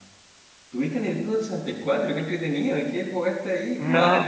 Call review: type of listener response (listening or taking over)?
taking over